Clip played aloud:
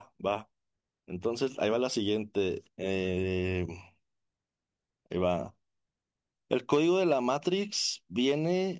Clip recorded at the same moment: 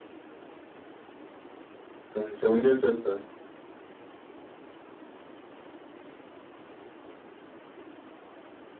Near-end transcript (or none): según, según yo es esta.